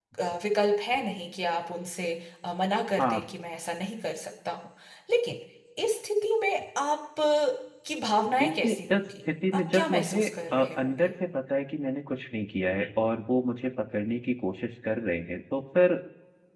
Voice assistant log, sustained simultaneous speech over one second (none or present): present